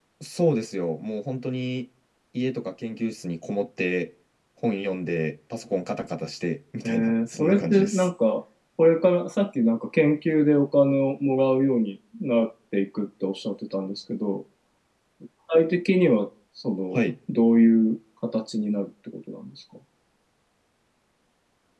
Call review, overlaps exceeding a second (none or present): present